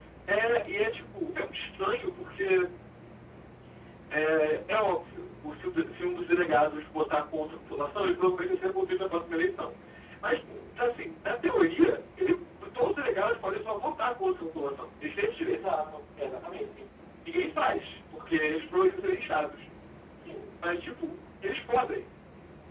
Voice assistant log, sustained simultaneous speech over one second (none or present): none